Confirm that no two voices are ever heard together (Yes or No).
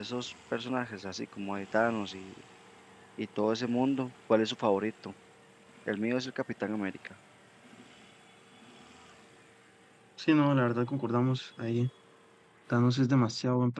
Yes